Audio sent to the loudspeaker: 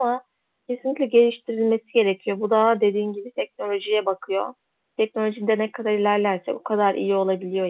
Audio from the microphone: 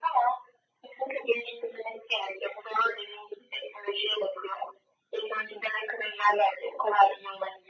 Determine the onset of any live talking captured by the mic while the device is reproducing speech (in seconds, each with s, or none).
none